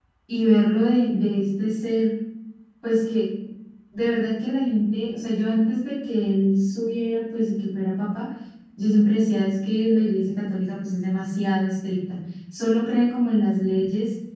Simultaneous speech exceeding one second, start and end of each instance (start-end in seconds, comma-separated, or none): none